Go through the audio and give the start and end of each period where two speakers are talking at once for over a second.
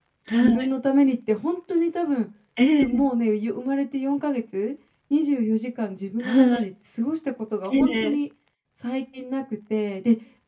none

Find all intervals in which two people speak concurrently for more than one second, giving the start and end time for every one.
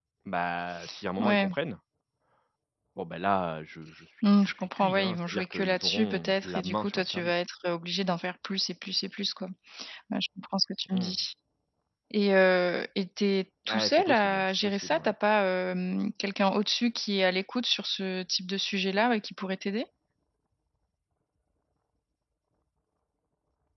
4.2-7.4, 13.7-15.1

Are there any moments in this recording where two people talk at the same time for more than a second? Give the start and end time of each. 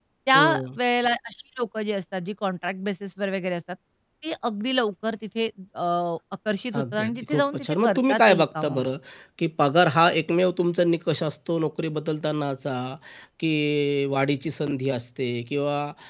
6.8-8.9

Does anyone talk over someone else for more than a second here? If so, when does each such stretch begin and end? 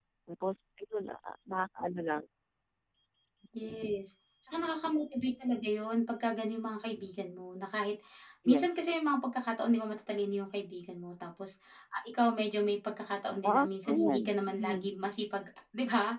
13.4-14.9

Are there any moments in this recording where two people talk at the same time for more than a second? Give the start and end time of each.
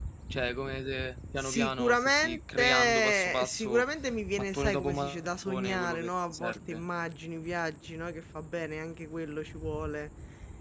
1.4-3.8, 4.4-6.8

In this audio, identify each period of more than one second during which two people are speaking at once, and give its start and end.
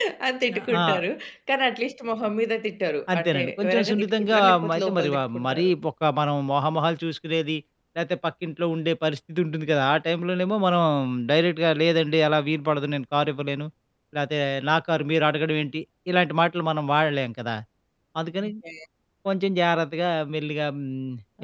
3.1-5.7

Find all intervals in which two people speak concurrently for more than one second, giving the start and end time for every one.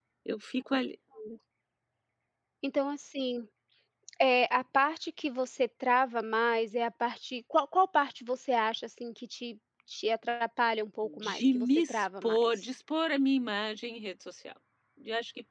11.0-12.6

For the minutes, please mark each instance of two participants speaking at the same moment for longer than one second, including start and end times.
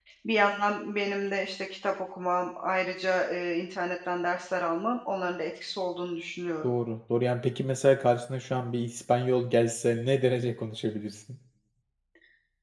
none

